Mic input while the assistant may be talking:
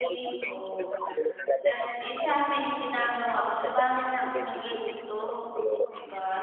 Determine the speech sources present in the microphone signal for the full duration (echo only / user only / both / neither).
both